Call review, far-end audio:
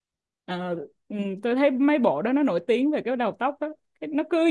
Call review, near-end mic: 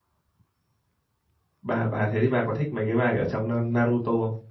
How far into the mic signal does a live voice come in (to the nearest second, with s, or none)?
2 s